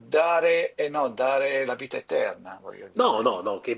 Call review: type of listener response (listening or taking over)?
taking over